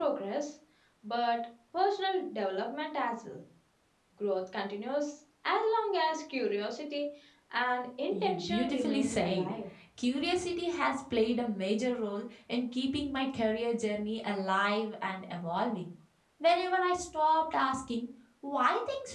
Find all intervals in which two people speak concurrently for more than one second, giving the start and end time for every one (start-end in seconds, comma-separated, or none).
8.1-9.5